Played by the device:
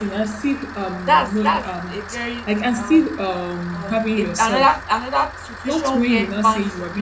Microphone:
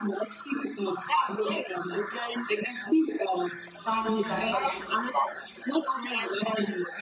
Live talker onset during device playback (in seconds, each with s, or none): 3.8 s